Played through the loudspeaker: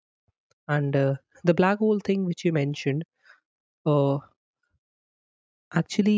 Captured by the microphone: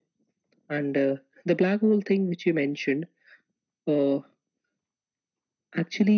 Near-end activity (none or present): none